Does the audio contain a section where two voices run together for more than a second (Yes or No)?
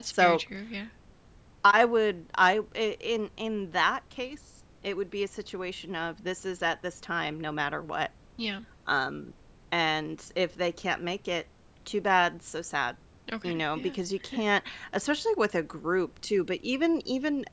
No